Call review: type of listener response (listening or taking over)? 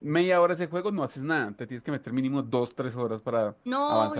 taking over